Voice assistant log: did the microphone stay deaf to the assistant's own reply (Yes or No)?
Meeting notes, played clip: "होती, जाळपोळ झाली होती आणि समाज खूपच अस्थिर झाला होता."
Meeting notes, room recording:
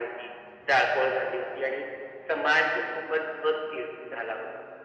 No